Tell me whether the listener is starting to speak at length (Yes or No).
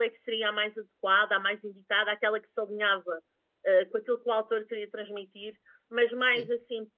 No